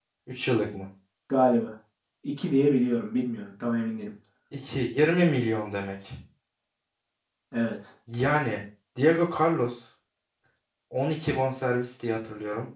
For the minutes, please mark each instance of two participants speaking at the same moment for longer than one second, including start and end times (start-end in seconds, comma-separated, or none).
none